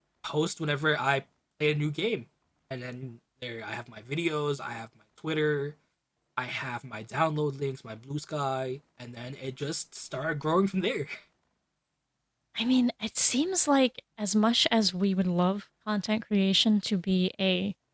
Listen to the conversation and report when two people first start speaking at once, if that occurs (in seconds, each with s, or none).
none